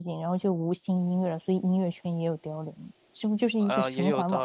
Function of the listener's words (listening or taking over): taking over